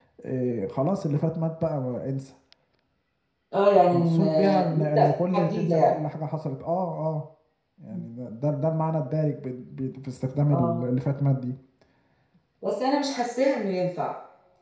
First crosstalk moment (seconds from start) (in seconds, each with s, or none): 3.9 s